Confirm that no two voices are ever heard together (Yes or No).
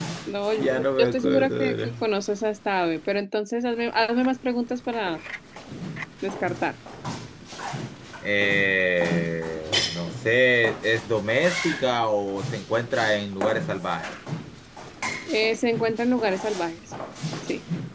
No